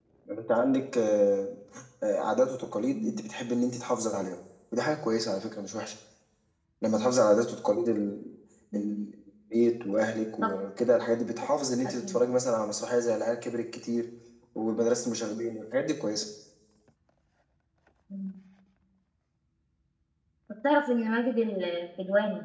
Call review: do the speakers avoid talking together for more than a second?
Yes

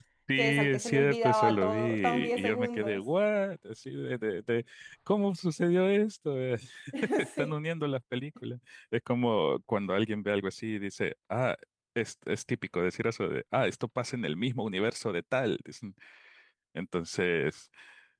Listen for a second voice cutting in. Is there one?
Yes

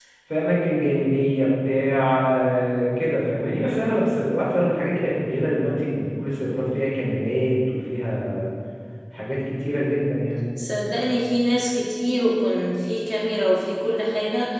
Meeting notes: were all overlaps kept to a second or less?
Yes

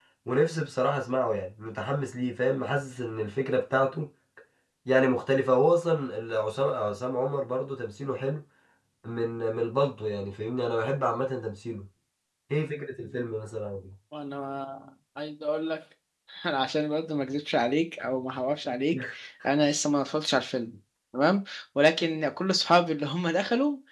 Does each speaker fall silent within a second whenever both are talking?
Yes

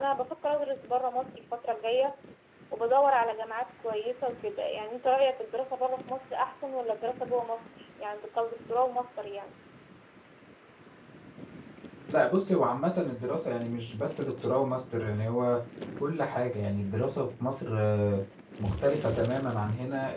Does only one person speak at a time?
Yes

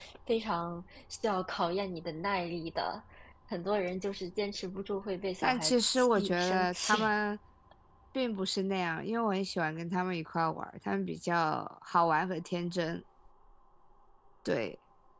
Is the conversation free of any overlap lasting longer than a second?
No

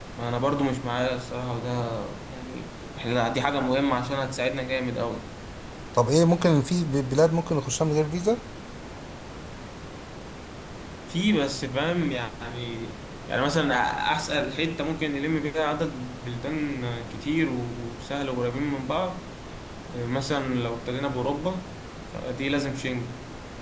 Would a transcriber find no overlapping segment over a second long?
Yes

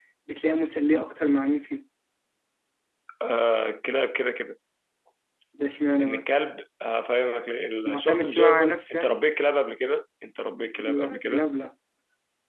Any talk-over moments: Yes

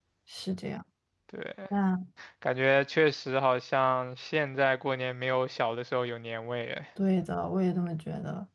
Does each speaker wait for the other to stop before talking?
Yes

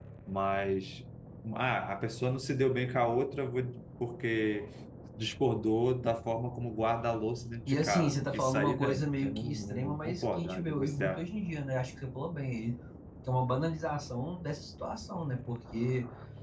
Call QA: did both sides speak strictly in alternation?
No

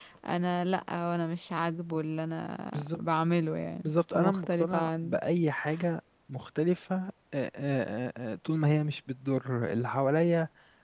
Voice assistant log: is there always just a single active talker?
No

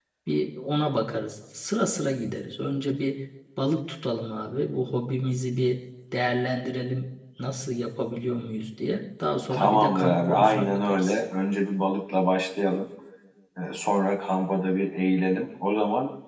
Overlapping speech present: Yes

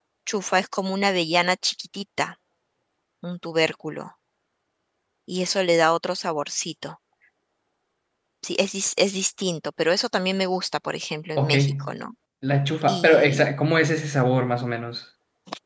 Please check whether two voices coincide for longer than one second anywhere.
No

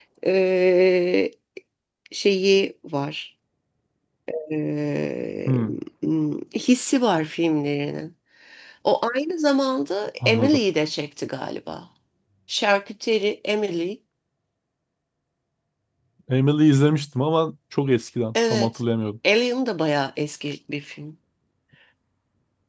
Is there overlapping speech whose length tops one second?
No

